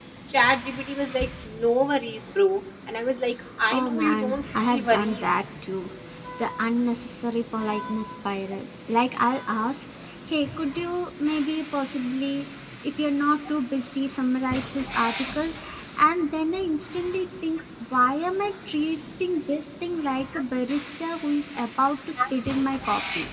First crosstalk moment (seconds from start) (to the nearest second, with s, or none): 4 s